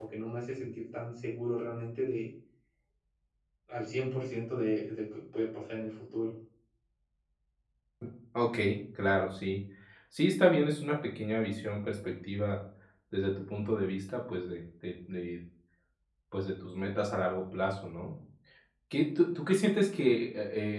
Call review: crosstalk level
none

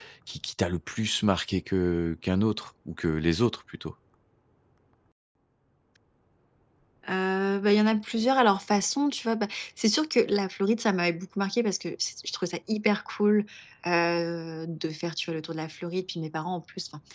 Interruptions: none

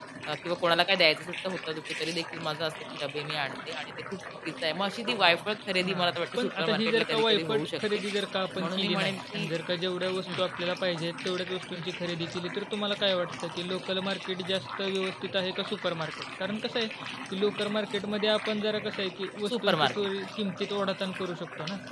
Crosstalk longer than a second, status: present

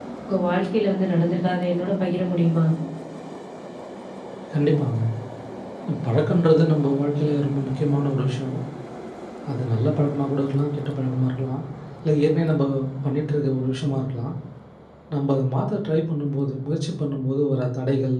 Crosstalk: none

